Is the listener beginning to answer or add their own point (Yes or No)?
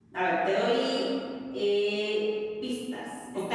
No